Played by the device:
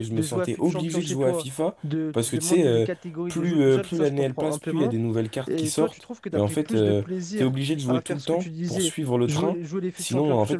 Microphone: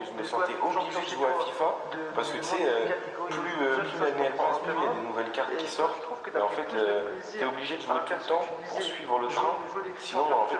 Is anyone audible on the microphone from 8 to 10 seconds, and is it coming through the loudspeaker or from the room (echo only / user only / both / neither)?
echo only